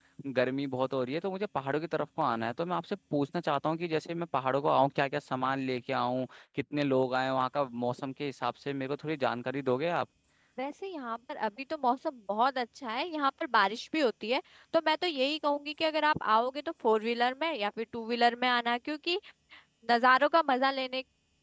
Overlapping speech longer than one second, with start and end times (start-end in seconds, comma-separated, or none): none